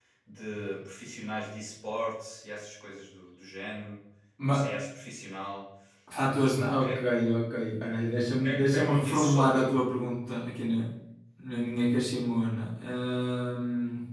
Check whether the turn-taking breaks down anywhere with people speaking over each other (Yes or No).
Yes